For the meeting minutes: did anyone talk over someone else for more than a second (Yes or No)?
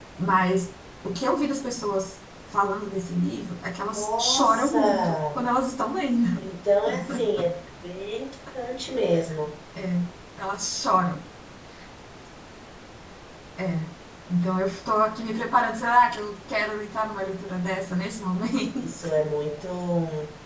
Yes